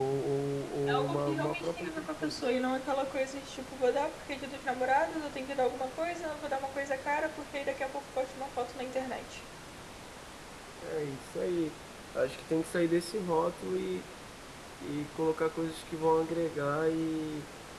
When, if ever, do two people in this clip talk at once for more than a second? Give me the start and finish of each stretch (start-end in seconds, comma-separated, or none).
0.9-2.4